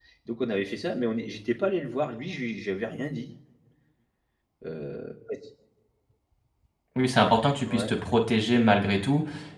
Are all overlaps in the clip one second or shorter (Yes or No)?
Yes